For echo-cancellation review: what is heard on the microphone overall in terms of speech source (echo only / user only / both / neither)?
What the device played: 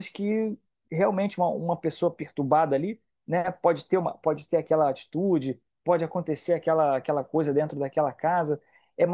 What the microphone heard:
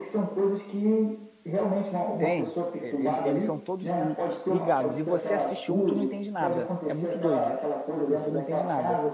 both